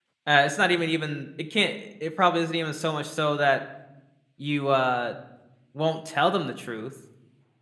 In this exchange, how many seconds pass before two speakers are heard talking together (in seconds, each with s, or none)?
none